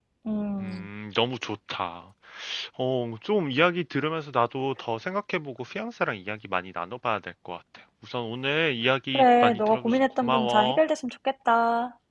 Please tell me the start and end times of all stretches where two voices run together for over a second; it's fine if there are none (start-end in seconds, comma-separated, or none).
9.1-10.8